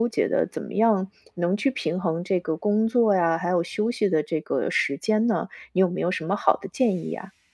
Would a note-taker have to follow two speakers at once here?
No

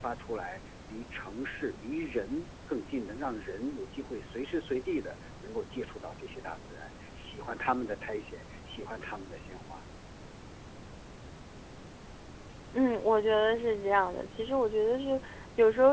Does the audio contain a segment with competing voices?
No

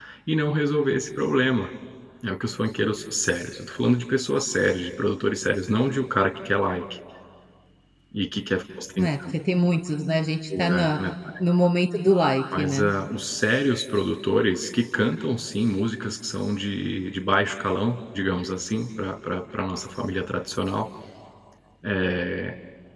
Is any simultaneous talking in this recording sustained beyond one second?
No

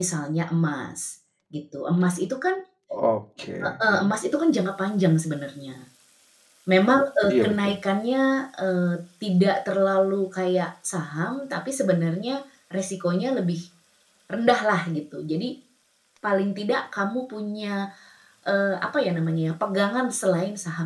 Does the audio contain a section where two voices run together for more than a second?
No

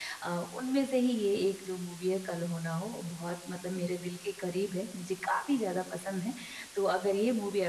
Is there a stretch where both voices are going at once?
No

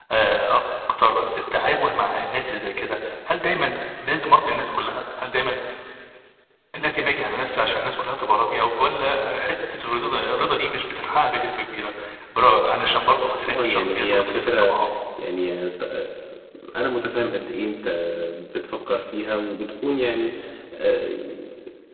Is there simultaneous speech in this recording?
Yes, from 13.4 s

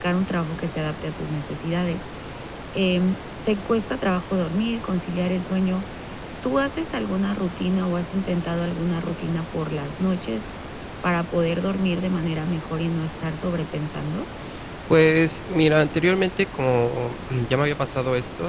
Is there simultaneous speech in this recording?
No

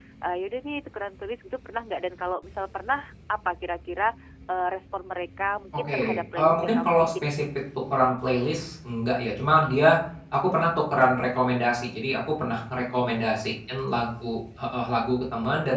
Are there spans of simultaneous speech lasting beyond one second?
Yes, from 5.7 s

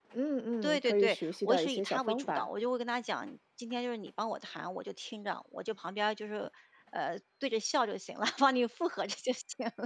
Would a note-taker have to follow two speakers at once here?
Yes, from 0.6 s

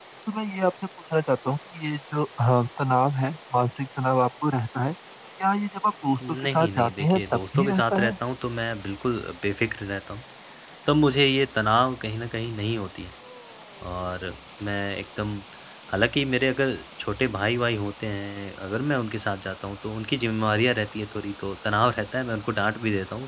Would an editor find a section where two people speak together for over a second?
Yes, from 6.2 s

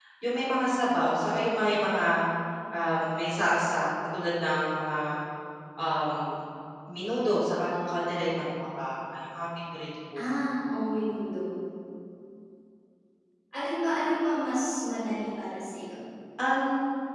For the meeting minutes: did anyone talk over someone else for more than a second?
No

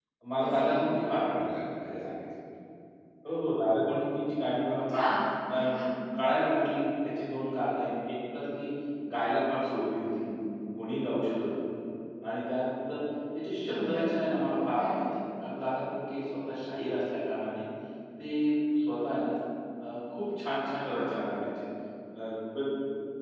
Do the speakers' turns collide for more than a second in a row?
No

